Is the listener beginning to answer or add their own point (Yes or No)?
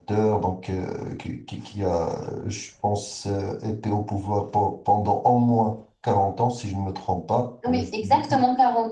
Yes